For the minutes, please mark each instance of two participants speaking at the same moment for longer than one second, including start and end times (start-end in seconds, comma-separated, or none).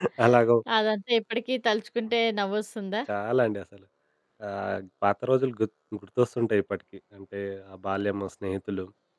none